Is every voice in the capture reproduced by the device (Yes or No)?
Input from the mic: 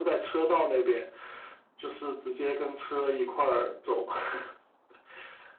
Yes